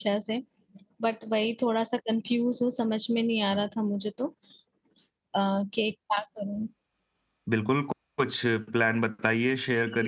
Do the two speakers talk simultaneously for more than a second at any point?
No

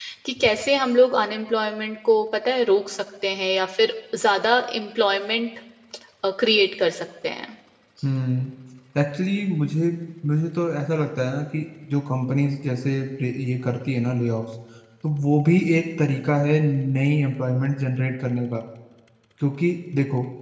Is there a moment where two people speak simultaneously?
No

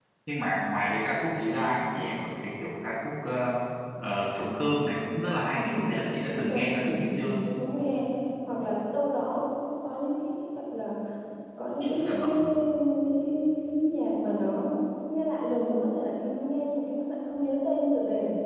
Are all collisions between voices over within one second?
No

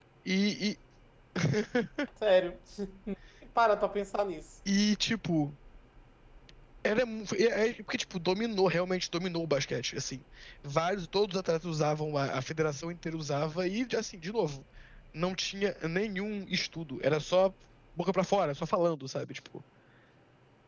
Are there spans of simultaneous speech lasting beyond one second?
No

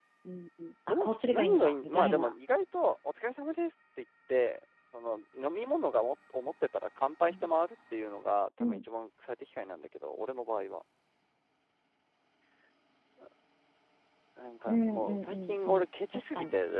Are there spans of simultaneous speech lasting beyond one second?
Yes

